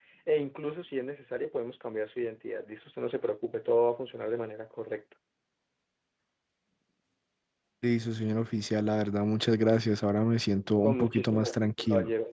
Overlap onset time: 10.8 s

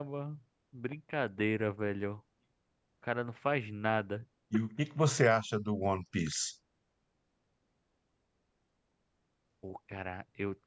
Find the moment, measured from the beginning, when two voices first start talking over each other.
none

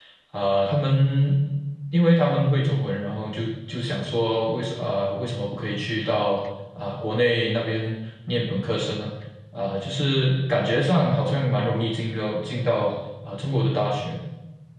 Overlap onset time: none

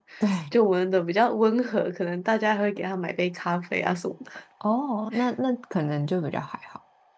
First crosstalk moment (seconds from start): none

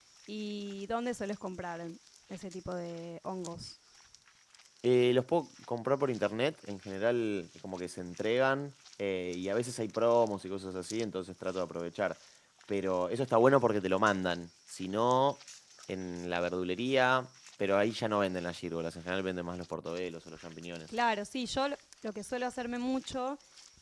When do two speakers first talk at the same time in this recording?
none

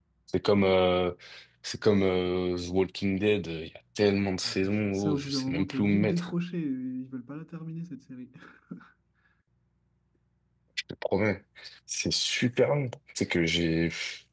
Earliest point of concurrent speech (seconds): 4.4 s

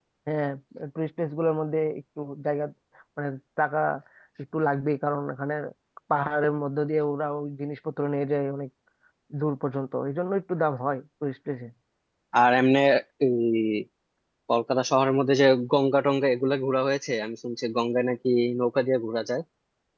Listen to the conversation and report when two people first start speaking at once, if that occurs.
none

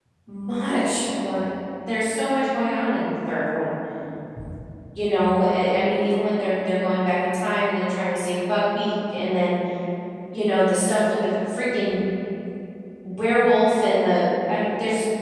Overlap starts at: none

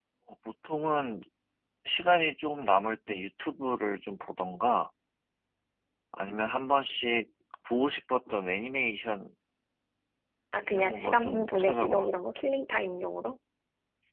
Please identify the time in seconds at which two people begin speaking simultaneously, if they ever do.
10.6 s

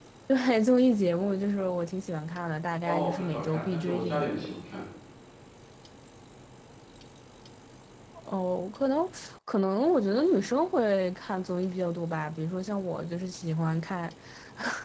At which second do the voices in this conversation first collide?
2.9 s

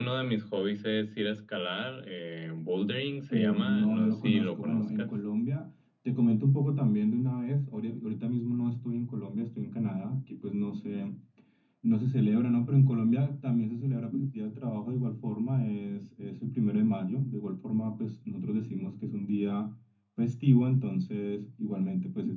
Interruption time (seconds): 3.3 s

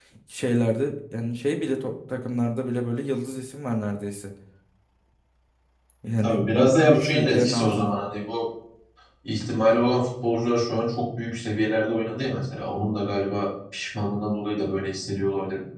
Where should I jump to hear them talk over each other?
6.2 s

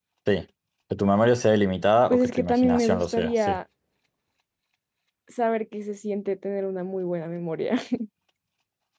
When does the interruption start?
2.1 s

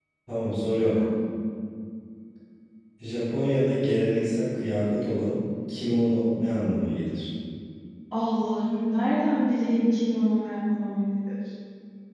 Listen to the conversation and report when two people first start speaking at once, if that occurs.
none

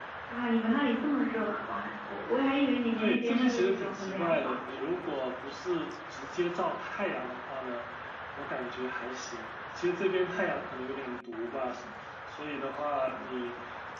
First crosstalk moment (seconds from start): 3.0 s

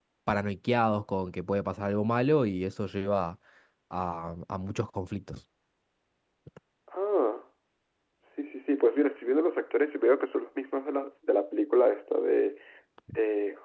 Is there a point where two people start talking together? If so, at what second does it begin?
none

